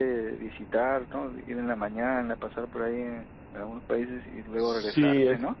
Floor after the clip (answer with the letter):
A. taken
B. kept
A